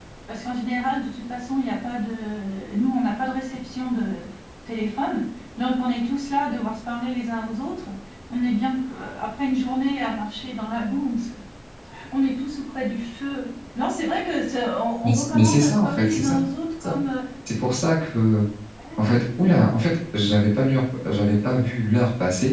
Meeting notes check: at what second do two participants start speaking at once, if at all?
15 s

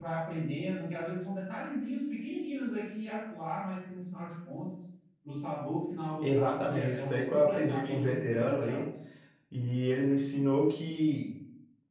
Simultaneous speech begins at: 6 s

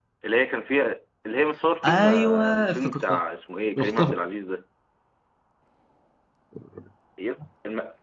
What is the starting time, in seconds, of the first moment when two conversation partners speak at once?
2 s

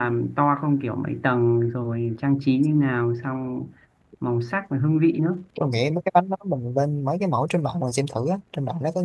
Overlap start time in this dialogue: none

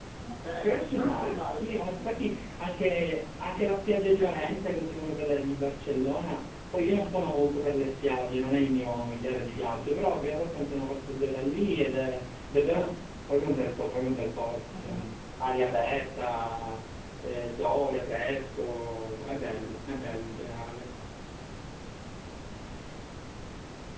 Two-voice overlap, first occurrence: 1 s

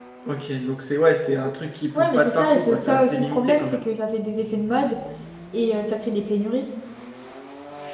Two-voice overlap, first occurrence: 2 s

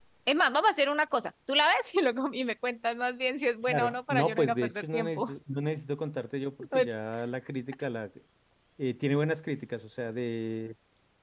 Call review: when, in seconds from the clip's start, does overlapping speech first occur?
4 s

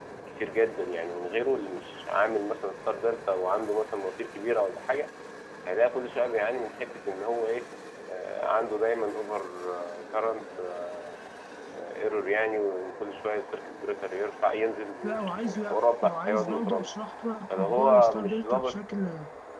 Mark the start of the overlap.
15 s

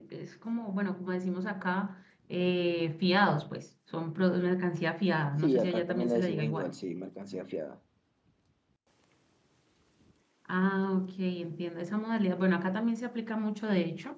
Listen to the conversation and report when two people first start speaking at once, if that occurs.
5 s

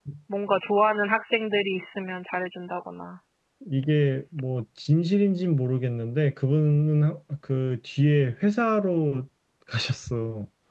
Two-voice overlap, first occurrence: none

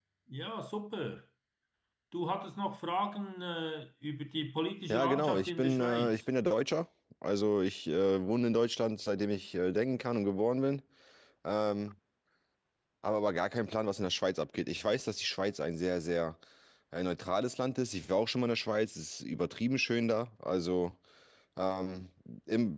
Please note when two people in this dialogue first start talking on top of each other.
5 s

